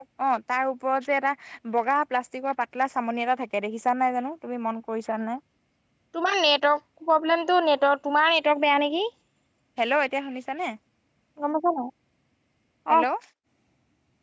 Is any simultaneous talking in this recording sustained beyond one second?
No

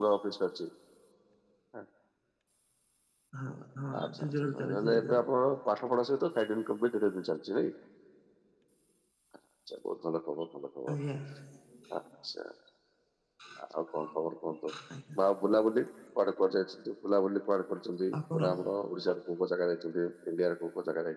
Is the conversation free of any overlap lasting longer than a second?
No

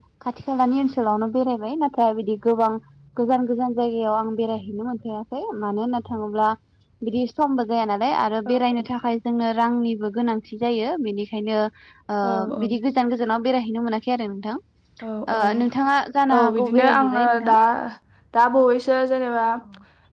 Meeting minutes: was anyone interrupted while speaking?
Yes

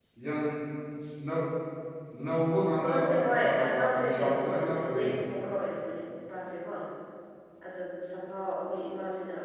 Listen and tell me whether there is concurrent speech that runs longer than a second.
Yes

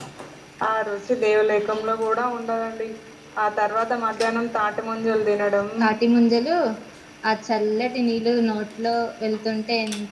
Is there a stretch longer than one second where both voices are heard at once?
No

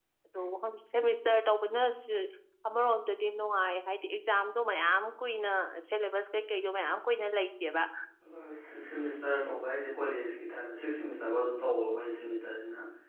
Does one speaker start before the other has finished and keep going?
No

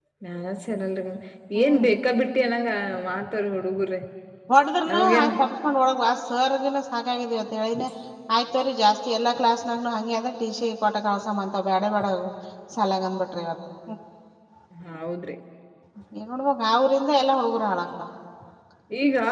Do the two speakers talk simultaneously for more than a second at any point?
No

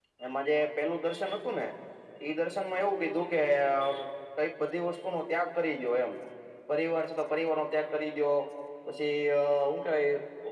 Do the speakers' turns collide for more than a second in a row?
No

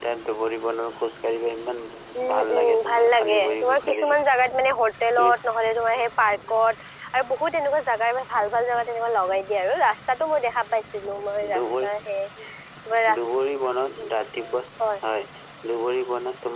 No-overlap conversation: No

